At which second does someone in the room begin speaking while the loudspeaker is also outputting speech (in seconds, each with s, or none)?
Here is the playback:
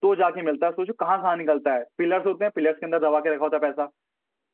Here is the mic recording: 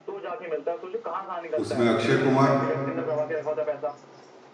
1.6 s